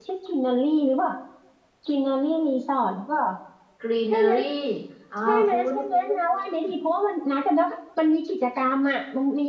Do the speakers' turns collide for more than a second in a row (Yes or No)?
Yes